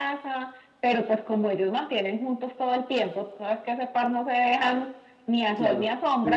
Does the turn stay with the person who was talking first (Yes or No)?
No